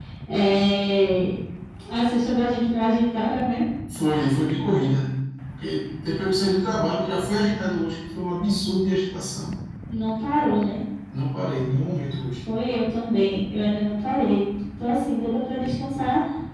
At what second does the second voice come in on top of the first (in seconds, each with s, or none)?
none